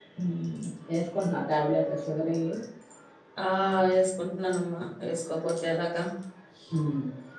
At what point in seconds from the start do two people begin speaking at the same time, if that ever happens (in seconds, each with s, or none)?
none